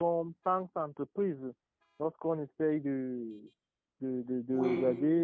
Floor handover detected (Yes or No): No